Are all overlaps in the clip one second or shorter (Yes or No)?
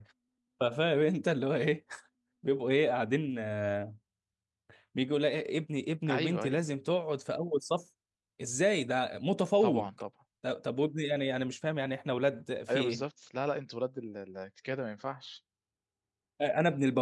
Yes